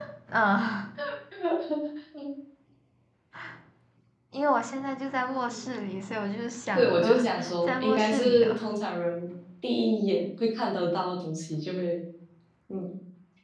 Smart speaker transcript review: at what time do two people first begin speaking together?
6.8 s

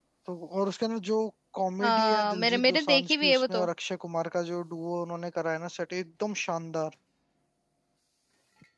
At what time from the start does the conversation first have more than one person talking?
1.8 s

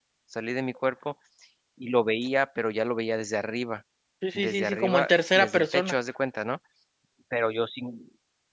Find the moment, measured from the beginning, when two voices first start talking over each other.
4.3 s

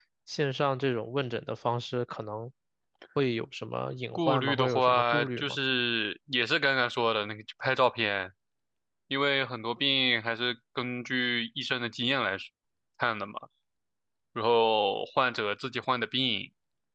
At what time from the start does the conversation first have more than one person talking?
4.1 s

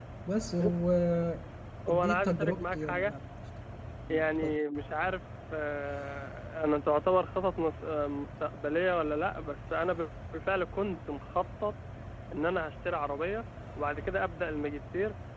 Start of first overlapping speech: 1.9 s

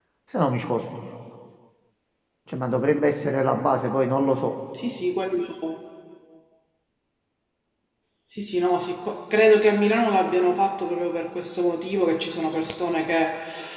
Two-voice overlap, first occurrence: none

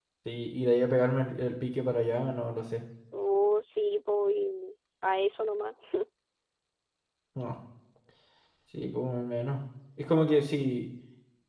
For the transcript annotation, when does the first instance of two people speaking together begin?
none

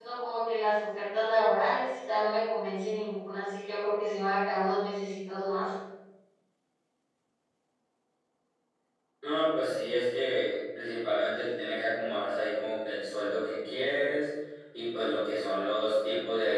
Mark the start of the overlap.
none

